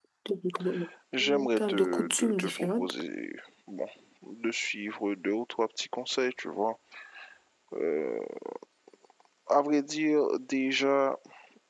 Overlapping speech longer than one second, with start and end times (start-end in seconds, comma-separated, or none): 1.2-2.9